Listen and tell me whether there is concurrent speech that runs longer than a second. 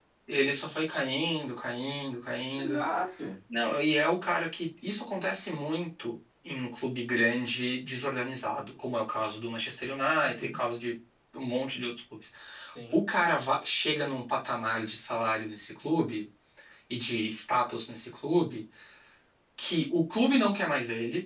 No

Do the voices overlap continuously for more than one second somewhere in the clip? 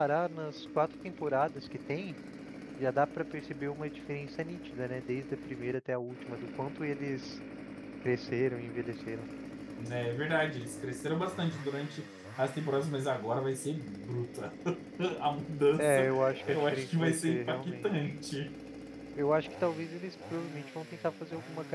Yes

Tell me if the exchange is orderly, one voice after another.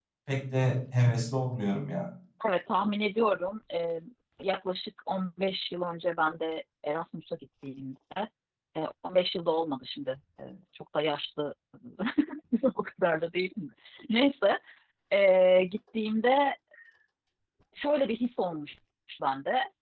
Yes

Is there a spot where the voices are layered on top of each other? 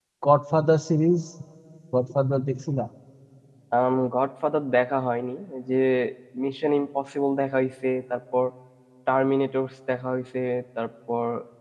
No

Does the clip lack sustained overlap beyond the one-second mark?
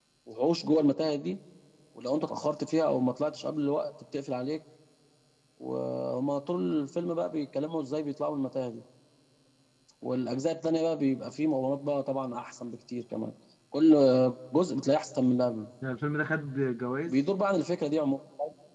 Yes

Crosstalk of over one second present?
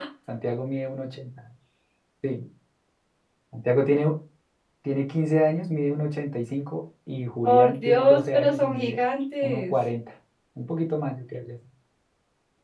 Yes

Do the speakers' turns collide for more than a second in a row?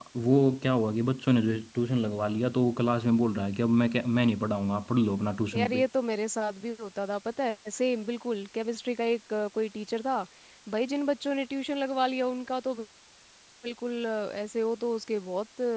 No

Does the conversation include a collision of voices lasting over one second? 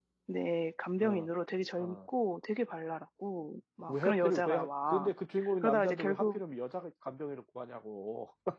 Yes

